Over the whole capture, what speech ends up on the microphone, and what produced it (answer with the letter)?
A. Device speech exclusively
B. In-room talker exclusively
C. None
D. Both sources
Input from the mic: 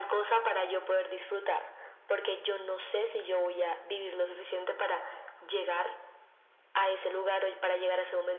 A